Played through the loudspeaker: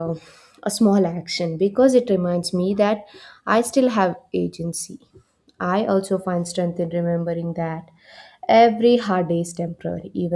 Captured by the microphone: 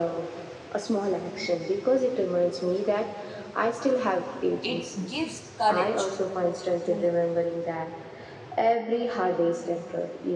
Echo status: present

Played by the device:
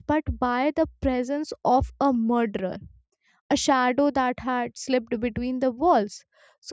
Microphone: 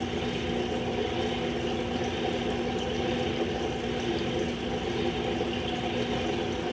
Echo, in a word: none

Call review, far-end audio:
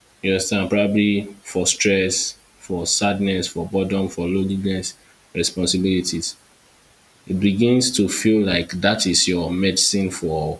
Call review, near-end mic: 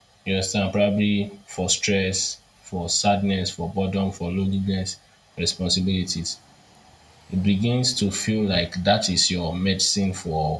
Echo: present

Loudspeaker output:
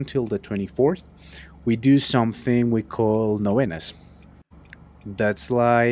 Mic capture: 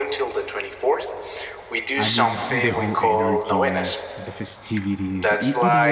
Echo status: present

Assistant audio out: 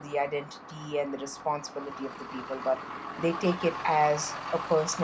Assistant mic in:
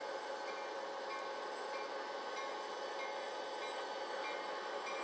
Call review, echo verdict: none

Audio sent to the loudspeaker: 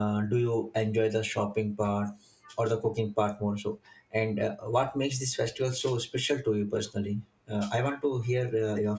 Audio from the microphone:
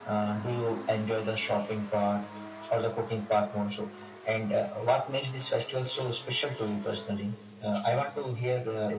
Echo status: present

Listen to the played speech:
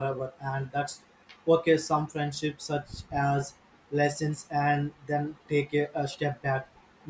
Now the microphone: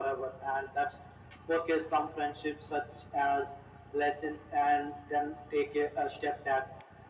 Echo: present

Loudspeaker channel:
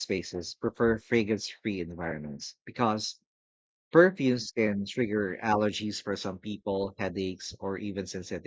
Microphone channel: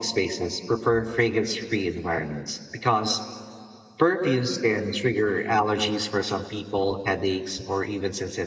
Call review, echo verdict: present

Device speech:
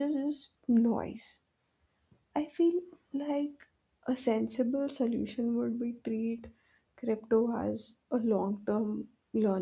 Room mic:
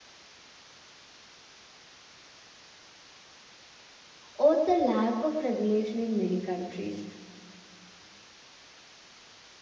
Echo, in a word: none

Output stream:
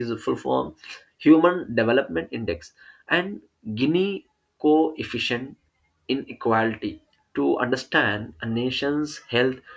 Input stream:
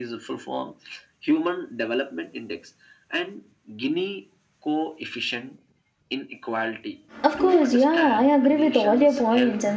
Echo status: present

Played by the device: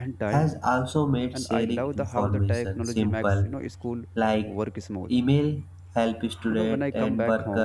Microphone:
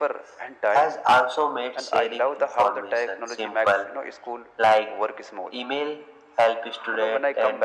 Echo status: present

